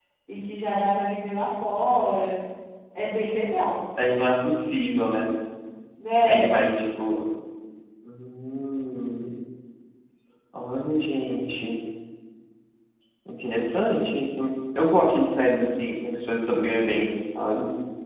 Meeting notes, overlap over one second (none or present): none